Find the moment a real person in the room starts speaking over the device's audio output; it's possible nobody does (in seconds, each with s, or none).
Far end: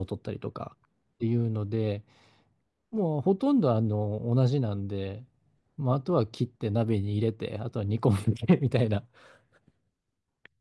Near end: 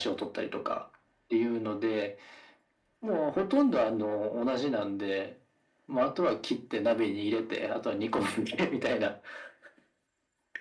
none